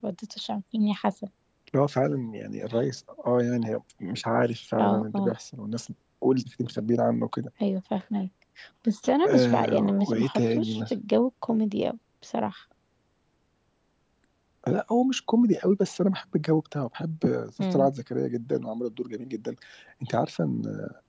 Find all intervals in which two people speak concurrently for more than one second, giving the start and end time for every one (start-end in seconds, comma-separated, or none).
9.3-10.8